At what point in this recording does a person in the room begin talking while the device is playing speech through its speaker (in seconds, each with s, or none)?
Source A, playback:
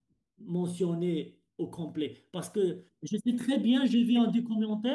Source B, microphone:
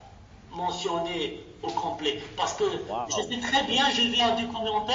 2.8 s